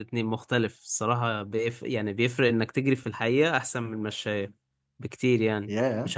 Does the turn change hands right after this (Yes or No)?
No